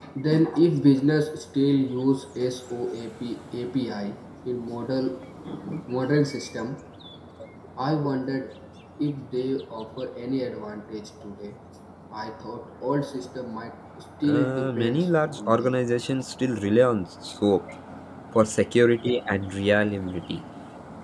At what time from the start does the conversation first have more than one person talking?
14 s

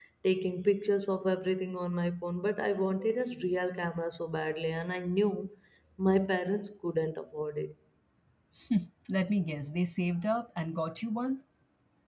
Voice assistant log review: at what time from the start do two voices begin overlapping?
none

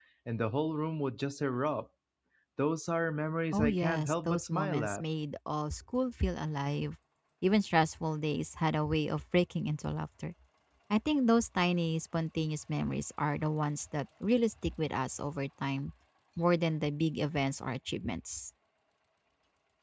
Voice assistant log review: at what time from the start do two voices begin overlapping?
4 s

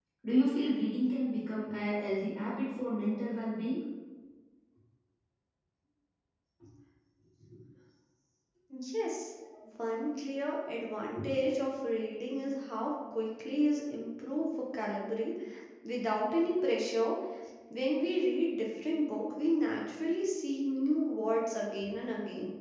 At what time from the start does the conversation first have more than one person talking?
none

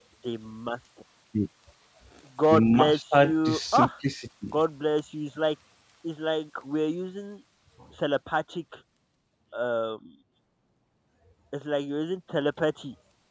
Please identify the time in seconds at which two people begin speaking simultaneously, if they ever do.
3 s

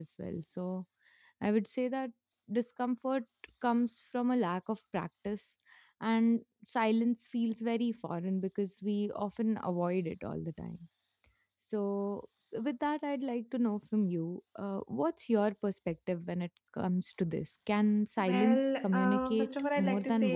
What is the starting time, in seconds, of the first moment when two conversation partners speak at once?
18 s

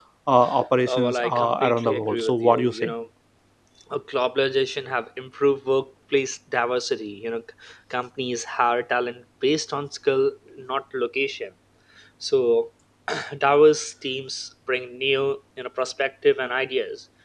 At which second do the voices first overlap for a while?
1 s

